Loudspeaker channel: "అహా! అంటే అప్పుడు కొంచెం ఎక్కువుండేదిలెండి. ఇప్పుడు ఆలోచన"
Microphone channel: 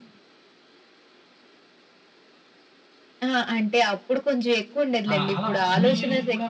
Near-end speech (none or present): present